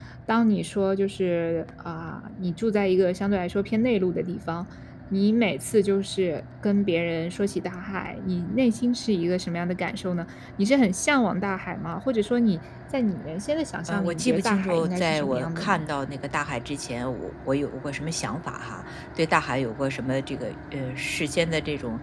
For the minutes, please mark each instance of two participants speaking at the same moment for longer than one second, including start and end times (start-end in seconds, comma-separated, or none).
13.9-15.8